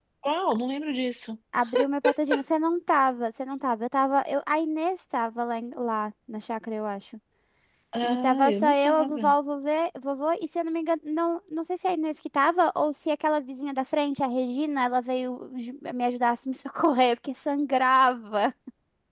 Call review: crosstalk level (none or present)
present